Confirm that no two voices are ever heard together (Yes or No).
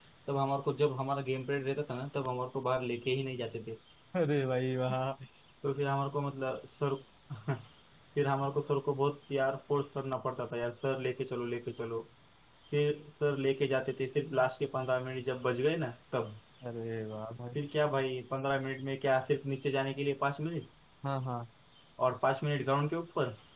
Yes